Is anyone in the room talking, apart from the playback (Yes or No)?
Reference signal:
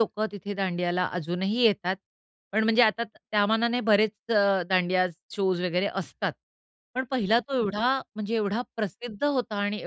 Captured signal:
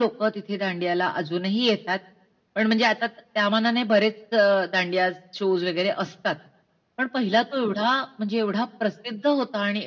No